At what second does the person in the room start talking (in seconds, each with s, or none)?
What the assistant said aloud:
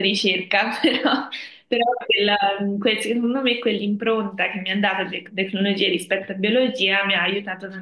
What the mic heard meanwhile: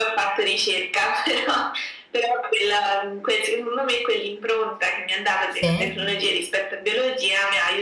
5.5 s